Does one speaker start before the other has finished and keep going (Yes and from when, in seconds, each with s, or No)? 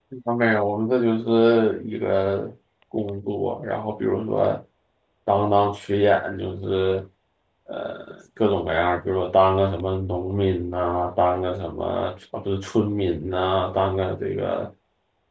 No